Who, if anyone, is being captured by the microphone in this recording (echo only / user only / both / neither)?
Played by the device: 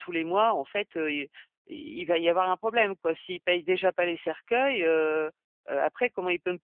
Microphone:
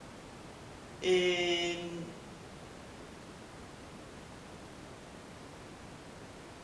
user only